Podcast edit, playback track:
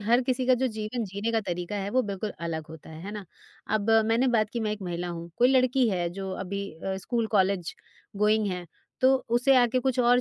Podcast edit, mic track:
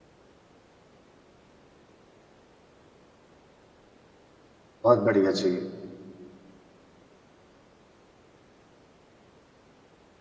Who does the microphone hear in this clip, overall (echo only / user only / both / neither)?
user only